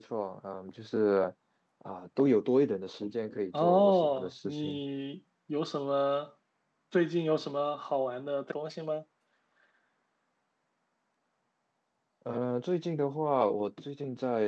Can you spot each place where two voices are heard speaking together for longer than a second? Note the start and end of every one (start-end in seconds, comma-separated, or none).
3.5-4.8